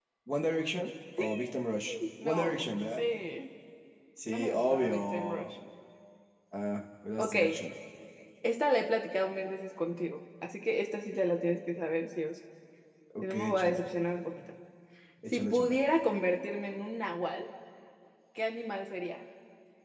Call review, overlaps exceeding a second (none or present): present